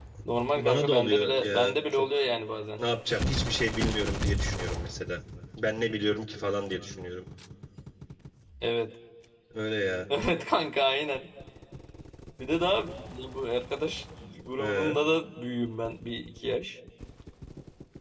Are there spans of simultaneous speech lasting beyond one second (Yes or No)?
Yes